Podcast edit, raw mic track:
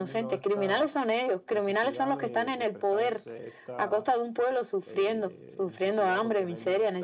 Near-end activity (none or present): present